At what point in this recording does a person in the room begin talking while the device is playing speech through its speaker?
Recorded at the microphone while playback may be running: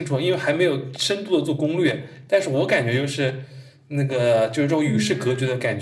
5 s

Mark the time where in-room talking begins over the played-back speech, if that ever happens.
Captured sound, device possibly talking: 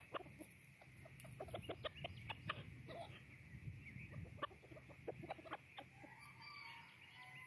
none

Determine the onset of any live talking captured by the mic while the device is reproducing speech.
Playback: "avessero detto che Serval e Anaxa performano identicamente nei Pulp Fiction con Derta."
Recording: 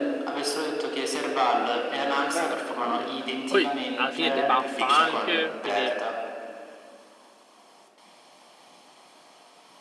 2 s

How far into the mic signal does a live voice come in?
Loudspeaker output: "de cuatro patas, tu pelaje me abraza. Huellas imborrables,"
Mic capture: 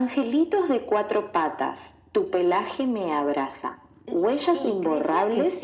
4 s

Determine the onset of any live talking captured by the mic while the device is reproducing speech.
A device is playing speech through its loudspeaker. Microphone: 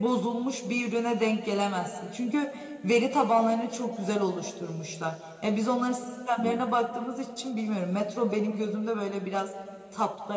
none

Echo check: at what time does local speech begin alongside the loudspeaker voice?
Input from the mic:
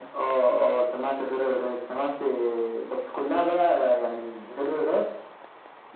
none

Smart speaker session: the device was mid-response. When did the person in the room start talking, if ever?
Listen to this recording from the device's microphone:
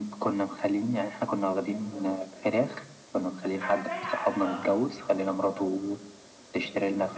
4 s

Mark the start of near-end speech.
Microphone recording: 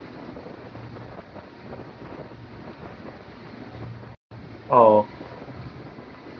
5 s

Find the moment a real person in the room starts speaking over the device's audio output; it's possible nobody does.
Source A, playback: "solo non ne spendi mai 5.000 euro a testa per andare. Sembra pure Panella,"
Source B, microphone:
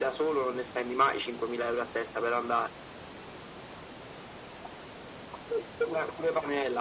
none

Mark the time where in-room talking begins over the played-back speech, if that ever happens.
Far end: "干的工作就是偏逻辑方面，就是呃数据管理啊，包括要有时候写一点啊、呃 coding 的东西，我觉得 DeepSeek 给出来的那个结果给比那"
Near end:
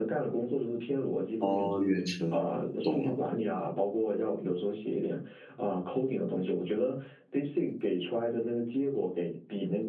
1 s

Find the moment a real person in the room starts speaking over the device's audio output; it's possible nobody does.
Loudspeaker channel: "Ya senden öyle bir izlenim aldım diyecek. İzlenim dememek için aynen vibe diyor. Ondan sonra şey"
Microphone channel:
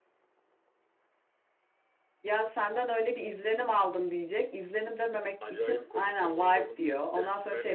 5 s

